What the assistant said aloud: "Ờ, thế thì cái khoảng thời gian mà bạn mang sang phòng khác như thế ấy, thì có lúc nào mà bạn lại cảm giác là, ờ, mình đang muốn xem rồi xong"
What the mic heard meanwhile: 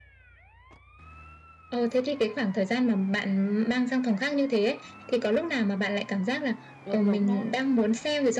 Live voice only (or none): đúng, đúng đó.